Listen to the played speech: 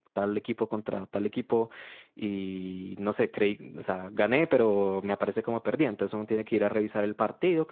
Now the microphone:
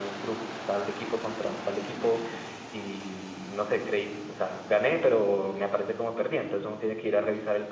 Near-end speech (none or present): none